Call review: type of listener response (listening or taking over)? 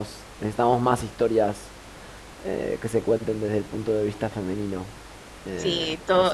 taking over